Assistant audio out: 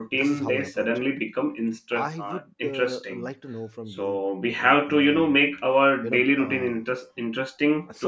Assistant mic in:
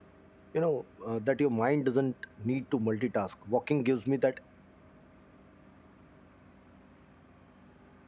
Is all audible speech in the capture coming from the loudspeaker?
No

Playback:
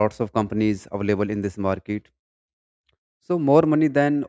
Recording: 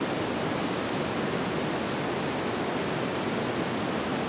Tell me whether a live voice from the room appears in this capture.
No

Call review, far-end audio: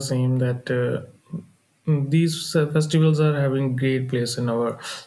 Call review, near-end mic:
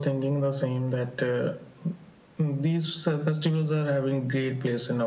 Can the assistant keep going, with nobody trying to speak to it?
Yes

